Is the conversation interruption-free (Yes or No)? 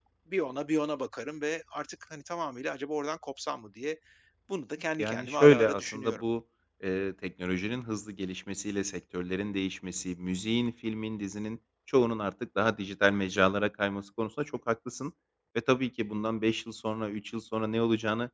No